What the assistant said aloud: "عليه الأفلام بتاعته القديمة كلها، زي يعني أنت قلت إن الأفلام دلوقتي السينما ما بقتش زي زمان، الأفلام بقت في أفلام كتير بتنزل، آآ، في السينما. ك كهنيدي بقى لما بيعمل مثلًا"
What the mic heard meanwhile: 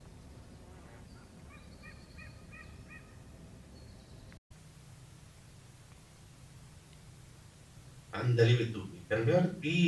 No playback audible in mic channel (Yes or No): Yes